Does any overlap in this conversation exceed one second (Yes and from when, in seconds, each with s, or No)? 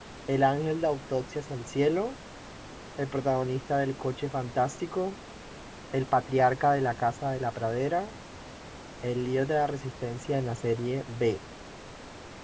No